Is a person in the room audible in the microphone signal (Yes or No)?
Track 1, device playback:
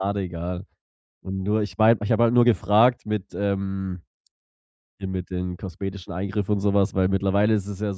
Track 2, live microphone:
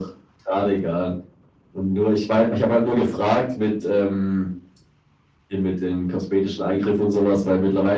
No